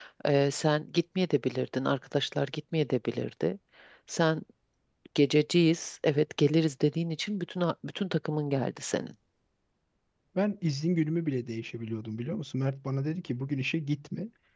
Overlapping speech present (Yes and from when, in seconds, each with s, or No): No